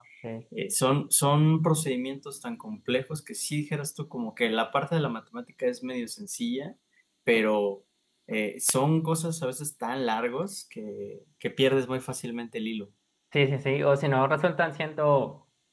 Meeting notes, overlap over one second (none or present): none